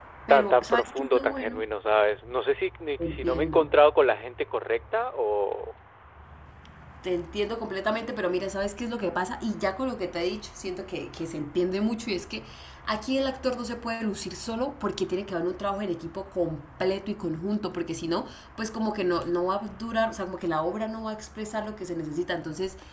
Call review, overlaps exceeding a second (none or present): present